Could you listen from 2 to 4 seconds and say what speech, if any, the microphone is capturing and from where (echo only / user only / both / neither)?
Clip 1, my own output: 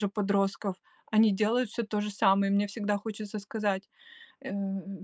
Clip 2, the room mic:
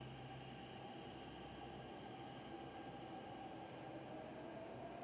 neither